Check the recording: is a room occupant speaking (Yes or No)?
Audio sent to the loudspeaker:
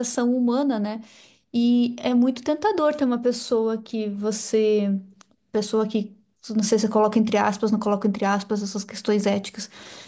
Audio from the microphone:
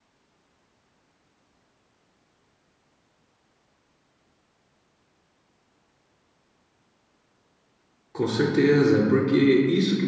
Yes